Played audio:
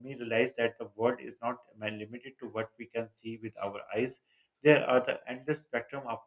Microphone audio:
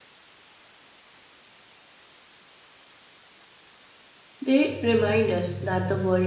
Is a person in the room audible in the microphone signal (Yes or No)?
Yes